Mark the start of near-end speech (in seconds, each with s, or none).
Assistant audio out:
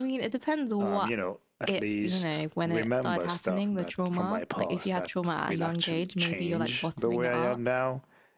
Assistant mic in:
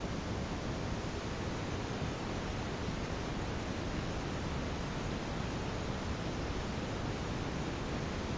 none